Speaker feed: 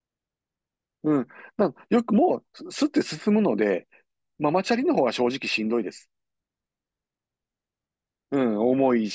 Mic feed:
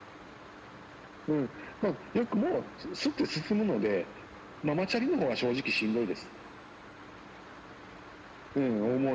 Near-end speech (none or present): none